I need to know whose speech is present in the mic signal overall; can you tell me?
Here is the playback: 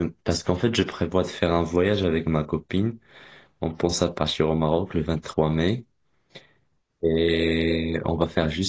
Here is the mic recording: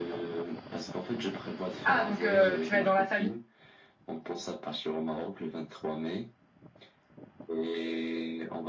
both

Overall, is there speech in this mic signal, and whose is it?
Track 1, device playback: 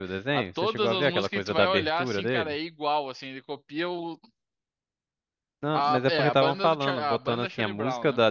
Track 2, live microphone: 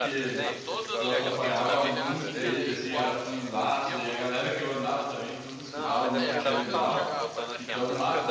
both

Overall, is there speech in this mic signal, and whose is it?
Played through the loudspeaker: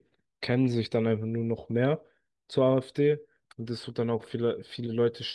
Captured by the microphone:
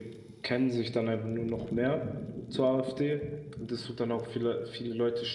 echo only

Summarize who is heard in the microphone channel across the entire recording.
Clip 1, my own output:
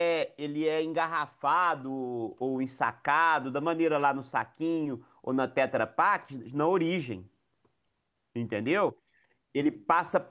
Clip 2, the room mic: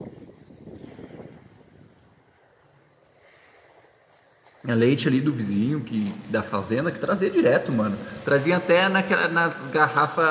user only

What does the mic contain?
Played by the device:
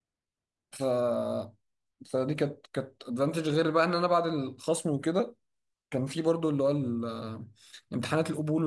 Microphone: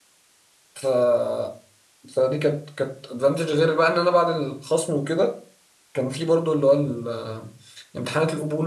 echo only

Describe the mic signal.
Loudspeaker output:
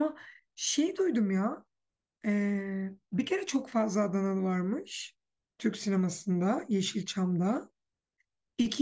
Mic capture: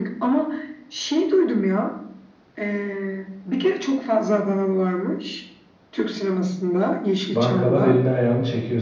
both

